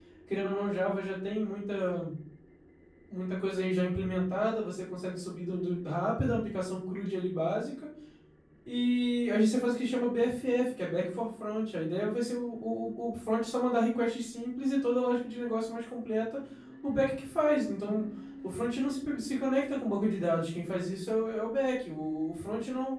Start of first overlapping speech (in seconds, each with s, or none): none